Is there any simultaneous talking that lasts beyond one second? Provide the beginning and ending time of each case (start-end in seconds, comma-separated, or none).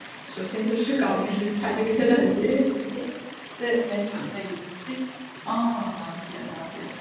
none